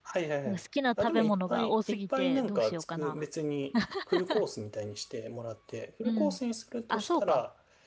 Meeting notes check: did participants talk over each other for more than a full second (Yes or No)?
Yes